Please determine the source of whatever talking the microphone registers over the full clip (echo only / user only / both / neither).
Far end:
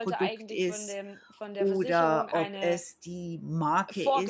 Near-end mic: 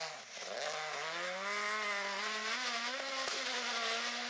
neither